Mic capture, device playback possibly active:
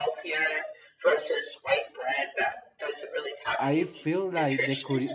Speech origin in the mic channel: both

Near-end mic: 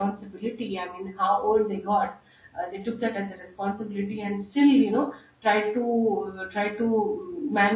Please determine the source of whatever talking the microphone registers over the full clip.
user only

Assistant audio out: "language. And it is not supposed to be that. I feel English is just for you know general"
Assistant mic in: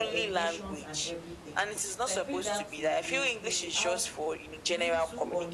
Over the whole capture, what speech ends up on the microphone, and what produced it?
both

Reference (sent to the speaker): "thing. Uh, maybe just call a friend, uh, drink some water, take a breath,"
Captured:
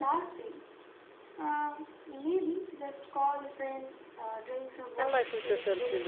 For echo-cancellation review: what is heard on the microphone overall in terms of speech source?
both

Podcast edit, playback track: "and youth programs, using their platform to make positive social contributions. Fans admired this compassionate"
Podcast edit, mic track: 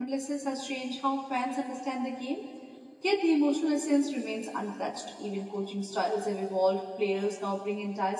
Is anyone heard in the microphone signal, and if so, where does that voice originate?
user only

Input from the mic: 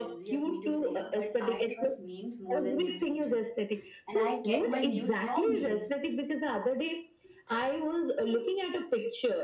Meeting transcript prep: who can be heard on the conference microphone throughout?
both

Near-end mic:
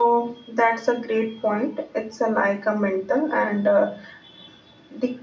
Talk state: user only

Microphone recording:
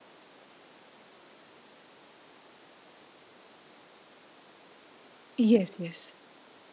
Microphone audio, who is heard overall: user only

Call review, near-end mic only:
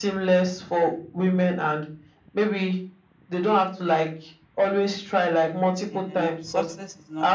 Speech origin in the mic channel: both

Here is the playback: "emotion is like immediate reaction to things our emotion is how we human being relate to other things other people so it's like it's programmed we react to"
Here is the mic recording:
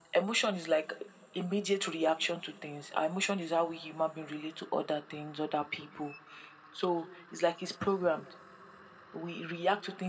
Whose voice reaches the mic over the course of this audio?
echo only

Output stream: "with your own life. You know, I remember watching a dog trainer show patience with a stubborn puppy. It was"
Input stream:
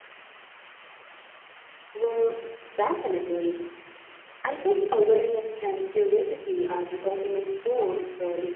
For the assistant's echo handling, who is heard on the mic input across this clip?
user only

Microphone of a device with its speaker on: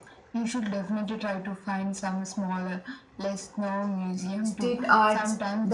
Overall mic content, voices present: both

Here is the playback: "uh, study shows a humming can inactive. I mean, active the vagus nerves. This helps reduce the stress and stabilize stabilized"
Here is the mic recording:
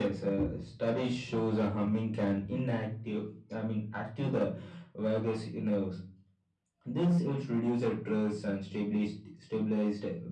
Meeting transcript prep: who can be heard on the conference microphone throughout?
echo only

